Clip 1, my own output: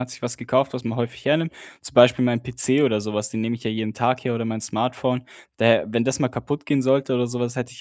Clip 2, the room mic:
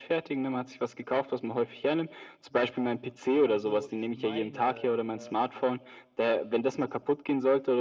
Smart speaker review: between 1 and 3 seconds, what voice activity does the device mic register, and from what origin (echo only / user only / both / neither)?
echo only